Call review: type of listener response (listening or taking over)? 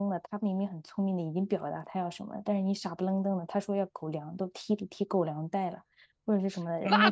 taking over